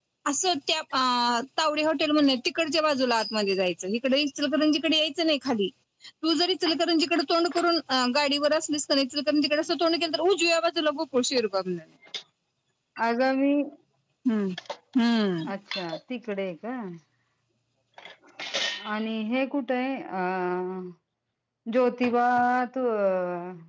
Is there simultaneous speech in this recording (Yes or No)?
No